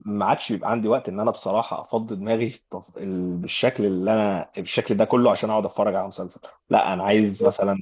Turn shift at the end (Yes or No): No